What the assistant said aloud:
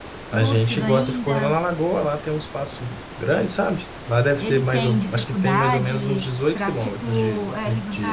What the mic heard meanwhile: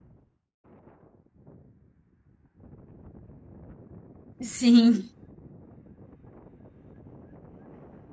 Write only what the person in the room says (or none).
Sim.